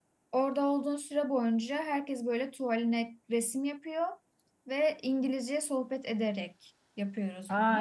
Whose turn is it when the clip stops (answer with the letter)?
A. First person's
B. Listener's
B